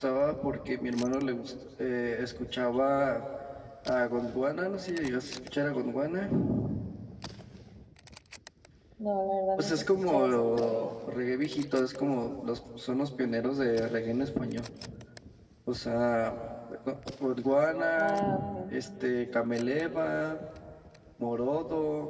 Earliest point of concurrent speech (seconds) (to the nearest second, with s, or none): 10 s